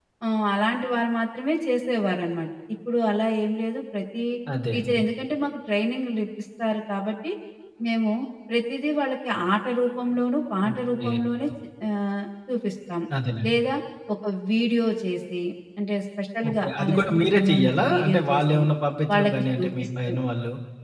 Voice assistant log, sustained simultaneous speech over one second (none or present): present